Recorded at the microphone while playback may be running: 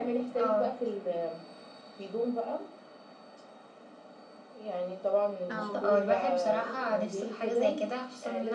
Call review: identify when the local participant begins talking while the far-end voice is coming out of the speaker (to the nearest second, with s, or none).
5 s